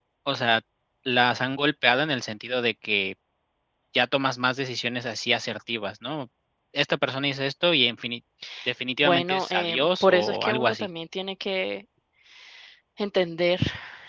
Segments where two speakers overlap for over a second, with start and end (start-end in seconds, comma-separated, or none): 9.0-10.9